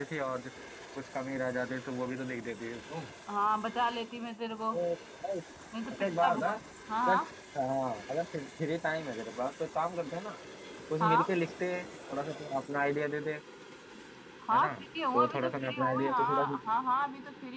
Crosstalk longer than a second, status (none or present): present